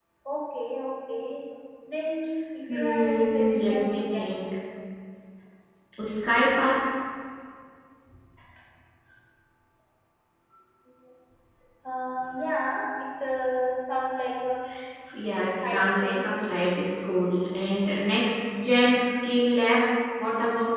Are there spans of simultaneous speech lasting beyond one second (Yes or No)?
Yes